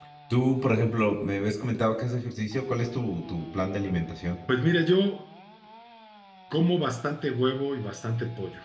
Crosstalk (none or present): none